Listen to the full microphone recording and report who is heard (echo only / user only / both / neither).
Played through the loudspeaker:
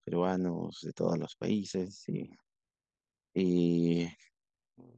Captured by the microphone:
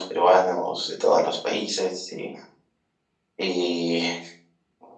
echo only